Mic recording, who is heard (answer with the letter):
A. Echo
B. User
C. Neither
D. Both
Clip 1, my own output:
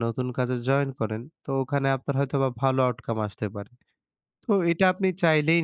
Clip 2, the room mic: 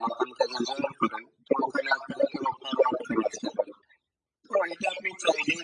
A